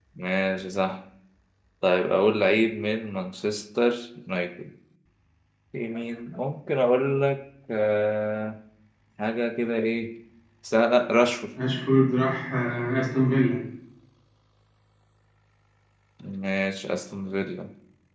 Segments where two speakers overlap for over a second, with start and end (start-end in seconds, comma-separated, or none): none